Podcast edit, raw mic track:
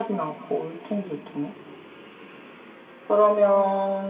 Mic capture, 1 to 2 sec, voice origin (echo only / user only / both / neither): echo only